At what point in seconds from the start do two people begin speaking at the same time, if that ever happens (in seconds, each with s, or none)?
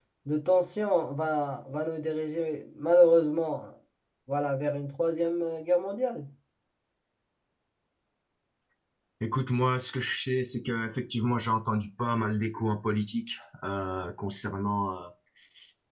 none